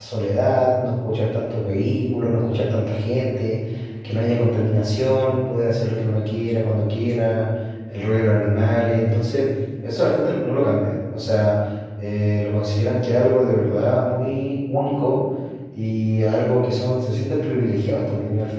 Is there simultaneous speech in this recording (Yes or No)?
No